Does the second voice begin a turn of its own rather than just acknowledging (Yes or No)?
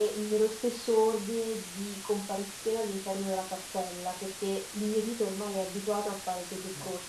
Yes